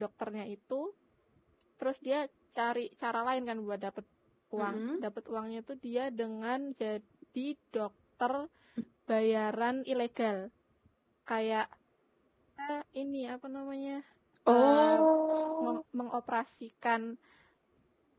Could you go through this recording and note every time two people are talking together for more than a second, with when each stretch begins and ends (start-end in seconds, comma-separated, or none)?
none